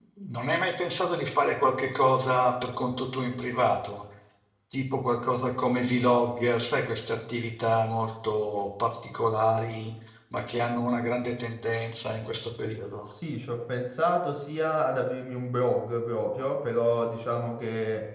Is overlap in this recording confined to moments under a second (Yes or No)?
Yes